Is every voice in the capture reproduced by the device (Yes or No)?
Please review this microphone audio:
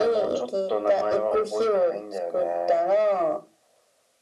Yes